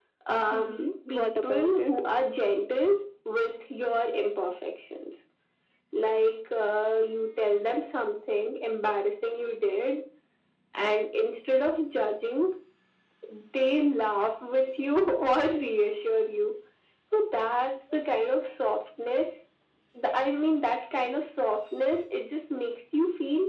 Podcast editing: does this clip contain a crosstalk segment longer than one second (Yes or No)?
Yes